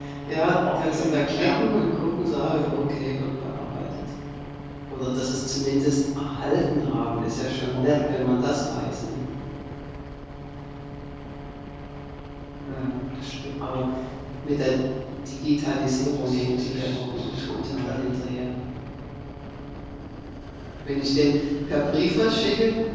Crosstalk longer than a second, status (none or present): present